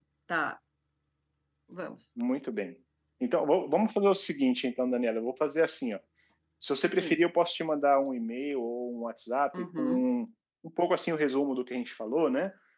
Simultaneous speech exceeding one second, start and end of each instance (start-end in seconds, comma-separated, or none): none